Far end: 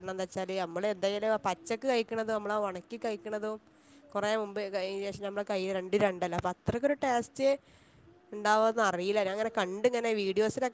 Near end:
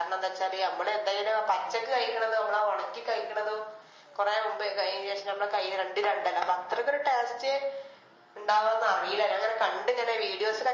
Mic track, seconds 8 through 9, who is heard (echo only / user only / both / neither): echo only